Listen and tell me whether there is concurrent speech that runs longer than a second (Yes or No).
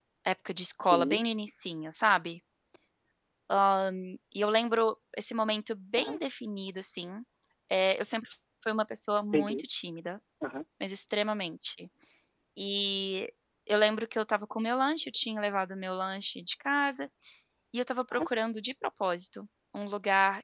No